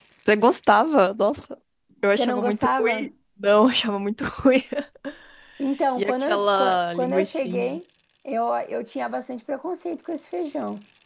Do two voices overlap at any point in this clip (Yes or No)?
Yes